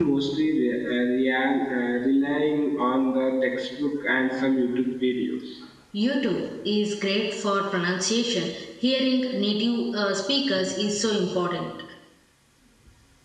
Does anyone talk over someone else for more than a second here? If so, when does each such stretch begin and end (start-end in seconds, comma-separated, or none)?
none